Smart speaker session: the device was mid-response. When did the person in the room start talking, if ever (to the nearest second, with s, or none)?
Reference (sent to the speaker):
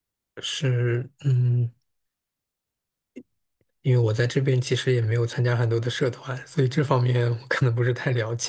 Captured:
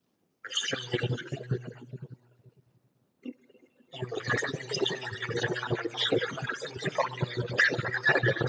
none